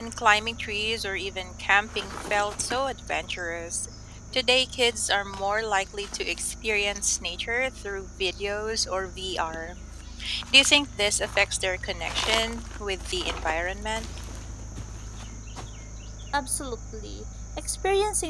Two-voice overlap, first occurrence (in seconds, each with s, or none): none